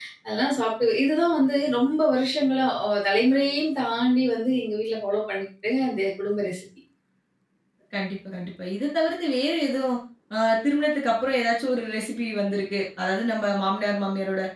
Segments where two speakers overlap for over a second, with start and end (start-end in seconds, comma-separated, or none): none